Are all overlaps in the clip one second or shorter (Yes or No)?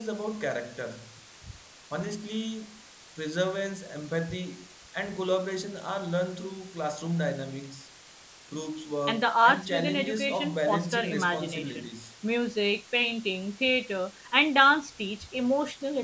No